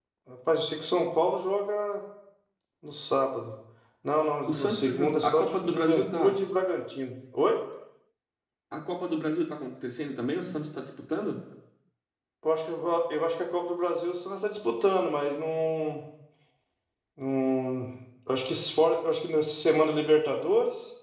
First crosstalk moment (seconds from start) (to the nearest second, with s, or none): 4 s